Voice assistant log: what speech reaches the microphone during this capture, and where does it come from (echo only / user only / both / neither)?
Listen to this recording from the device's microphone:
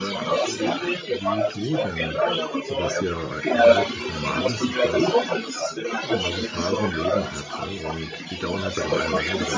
both